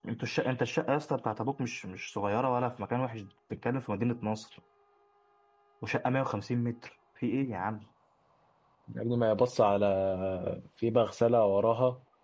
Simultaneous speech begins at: none

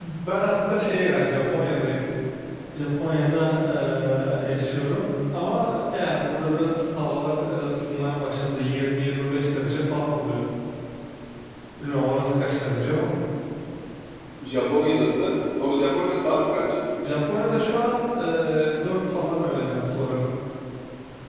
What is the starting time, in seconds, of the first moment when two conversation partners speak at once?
none

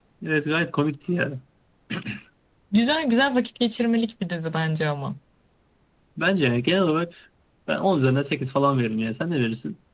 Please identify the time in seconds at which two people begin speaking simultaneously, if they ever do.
none

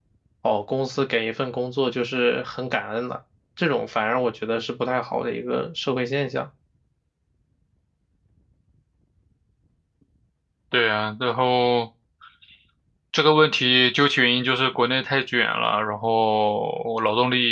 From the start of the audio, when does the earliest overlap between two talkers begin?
none

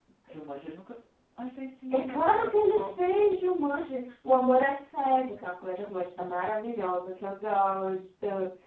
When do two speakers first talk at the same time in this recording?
2 s

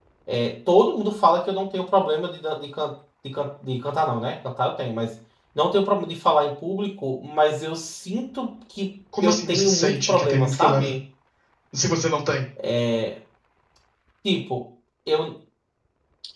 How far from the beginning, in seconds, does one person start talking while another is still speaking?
9 s

